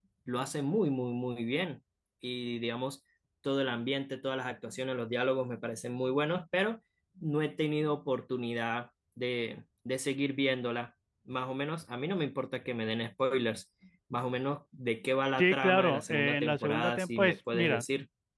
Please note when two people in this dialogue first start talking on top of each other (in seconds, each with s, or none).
15.4 s